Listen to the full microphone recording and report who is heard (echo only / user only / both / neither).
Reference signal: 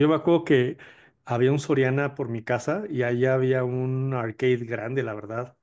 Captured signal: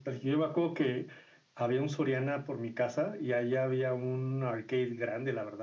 echo only